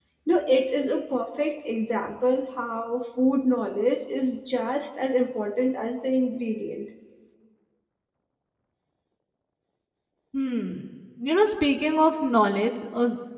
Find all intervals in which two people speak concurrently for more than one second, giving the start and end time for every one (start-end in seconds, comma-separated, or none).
none